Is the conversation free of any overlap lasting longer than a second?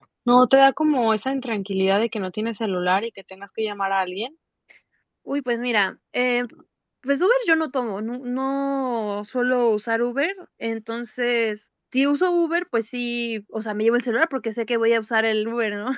Yes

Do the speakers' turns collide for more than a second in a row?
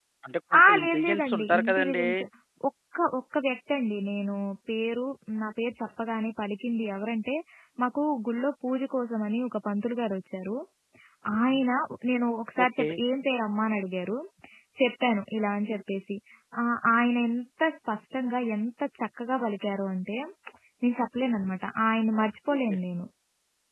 Yes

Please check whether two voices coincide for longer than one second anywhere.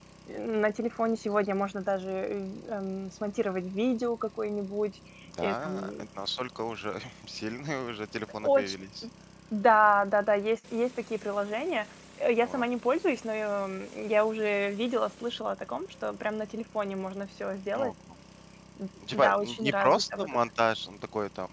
Yes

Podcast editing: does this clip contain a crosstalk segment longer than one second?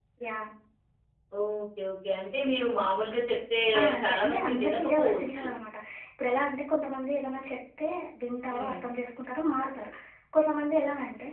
Yes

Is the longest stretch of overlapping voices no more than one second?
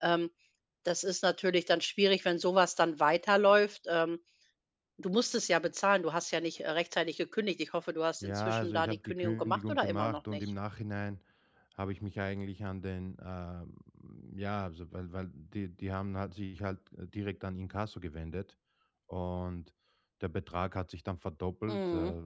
No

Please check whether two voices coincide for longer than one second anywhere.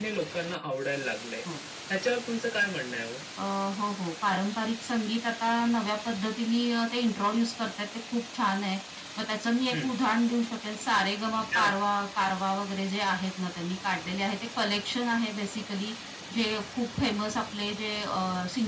No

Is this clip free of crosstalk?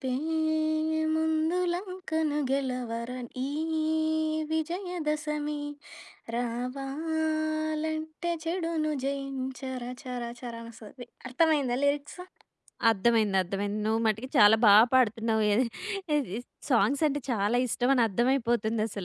Yes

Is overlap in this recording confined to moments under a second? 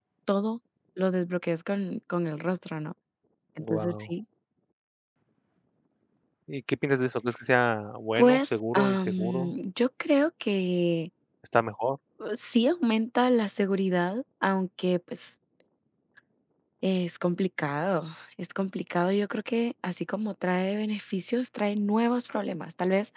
No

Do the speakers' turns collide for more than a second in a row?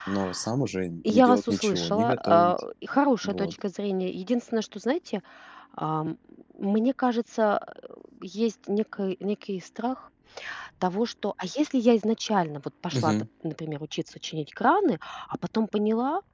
Yes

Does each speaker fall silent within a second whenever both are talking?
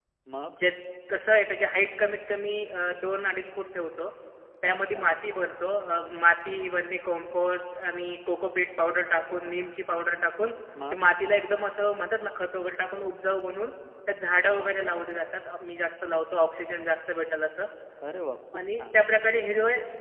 Yes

